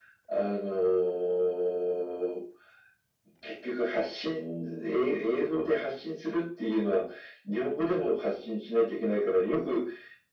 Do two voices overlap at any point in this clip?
No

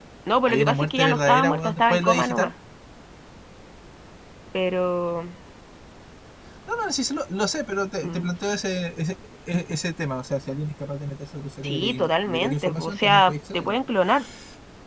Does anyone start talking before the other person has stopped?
Yes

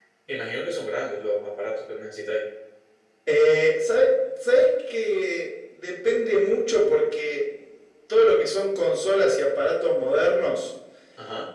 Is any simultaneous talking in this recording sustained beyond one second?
No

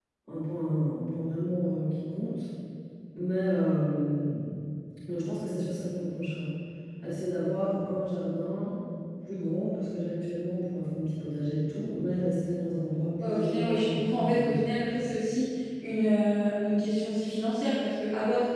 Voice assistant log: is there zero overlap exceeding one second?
No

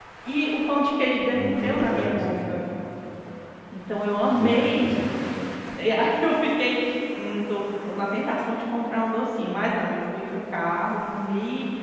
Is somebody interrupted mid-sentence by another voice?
Yes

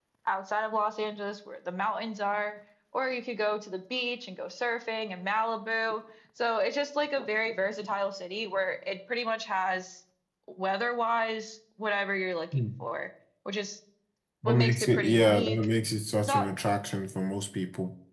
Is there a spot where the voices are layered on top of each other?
Yes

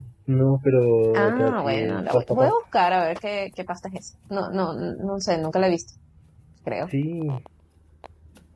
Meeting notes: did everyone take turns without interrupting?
No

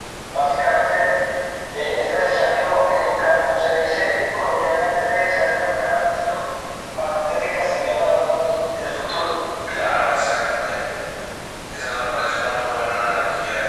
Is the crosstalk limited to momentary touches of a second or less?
Yes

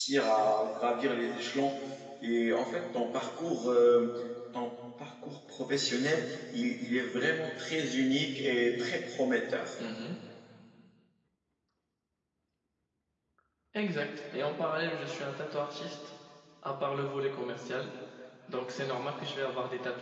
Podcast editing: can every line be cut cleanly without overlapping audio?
Yes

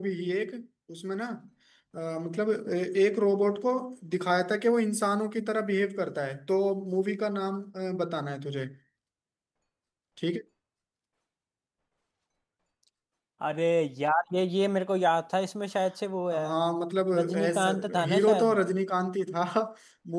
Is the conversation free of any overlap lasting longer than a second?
No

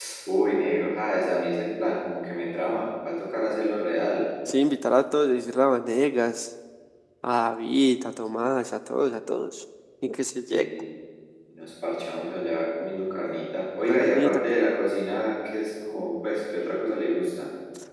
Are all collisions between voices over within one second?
Yes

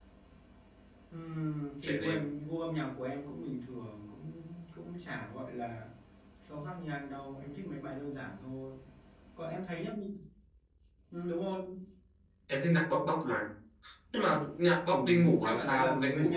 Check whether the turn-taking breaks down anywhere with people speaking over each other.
Yes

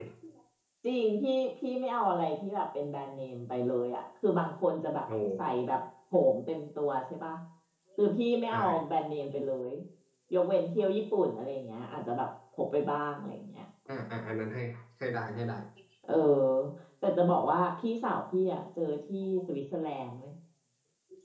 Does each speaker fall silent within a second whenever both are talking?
Yes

